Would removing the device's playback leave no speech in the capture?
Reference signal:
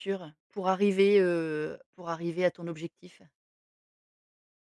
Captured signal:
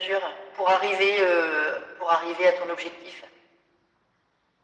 Yes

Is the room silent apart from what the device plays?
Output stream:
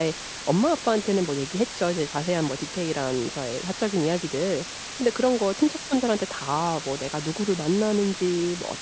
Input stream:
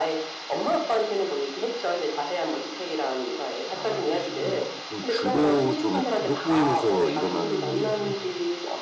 No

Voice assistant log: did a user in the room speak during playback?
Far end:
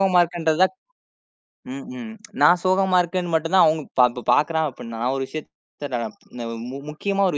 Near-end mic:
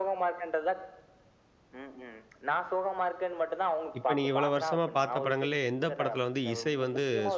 Yes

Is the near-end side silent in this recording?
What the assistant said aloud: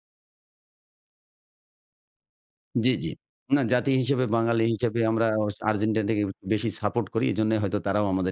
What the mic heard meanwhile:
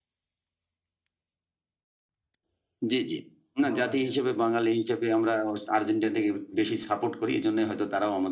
No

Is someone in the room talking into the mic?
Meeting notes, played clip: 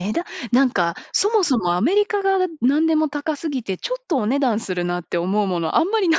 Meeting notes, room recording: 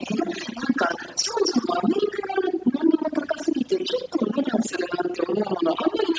No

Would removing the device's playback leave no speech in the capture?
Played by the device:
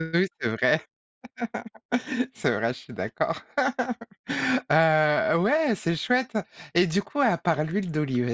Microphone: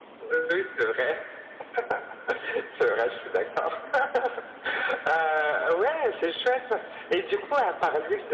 Yes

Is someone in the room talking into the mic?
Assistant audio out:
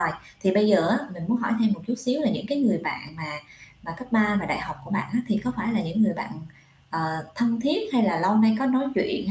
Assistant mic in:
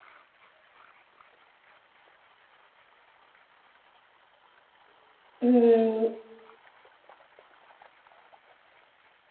Yes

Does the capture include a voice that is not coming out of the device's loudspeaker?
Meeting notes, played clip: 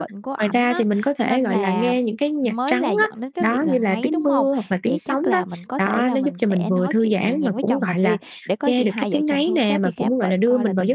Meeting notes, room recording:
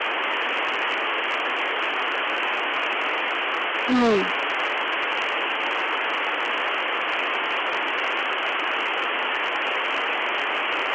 Yes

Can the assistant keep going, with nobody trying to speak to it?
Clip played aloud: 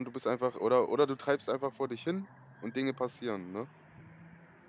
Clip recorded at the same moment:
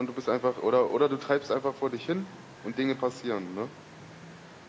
Yes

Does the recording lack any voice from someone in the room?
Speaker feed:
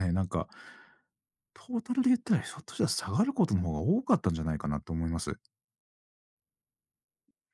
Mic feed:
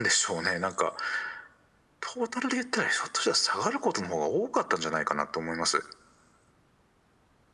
Yes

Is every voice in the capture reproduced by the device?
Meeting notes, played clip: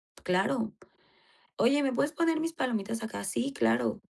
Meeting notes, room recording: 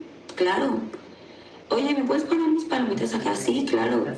No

